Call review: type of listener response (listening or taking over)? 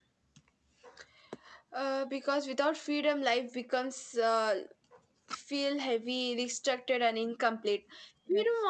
listening